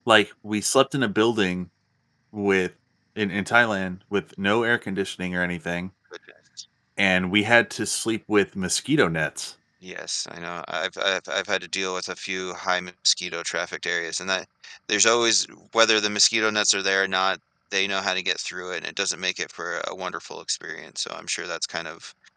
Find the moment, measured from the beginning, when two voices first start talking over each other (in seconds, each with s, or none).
none